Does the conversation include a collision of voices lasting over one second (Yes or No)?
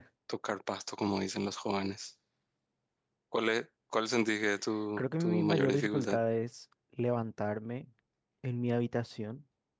Yes